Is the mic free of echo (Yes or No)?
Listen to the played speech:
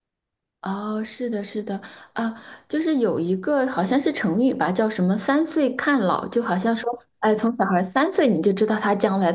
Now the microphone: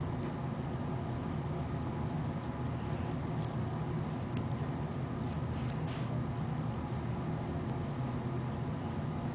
Yes